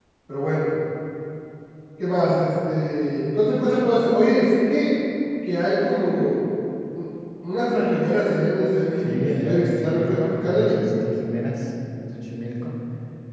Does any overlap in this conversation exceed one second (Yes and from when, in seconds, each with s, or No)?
Yes, from 9.0 s